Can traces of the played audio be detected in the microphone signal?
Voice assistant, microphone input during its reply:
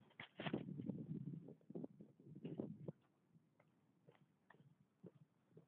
No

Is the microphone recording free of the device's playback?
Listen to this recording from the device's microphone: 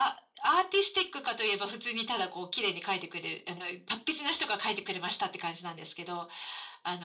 No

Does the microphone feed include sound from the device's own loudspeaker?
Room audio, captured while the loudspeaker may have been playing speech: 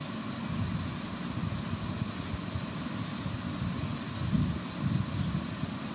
No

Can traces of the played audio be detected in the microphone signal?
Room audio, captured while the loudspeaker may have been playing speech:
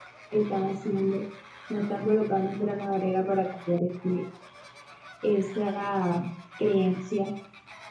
Yes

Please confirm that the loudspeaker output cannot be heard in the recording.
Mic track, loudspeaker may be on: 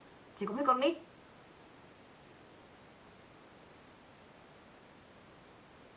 Yes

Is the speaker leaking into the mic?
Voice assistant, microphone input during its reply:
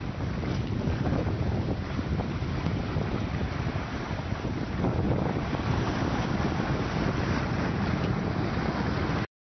No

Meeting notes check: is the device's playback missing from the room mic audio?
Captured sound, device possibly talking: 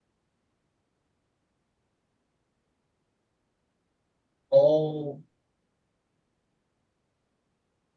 Yes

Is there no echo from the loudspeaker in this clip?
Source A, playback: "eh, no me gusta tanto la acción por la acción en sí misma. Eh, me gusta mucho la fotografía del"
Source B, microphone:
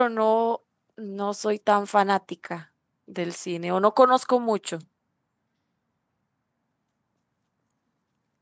Yes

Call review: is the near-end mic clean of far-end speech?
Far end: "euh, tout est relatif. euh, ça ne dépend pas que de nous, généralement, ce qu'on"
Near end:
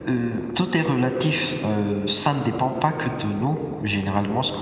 No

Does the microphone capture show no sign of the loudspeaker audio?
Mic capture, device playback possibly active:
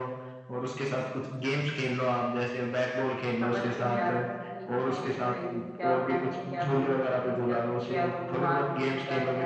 No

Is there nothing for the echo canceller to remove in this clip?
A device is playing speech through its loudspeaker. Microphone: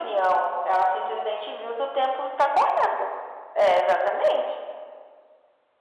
No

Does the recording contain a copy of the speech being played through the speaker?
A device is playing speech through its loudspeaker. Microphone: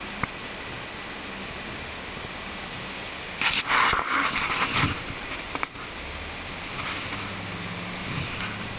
No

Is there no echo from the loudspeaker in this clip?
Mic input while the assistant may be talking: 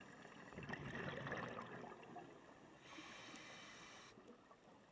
Yes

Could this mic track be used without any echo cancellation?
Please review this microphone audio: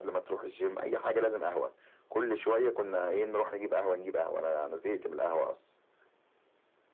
No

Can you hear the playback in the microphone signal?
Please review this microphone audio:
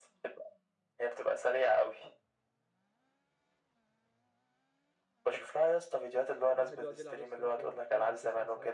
Yes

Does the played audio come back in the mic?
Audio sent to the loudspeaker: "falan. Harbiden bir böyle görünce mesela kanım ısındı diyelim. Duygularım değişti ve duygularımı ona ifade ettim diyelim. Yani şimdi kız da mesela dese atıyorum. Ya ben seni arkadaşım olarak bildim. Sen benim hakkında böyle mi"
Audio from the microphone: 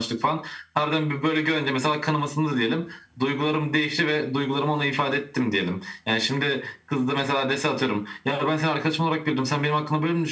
Yes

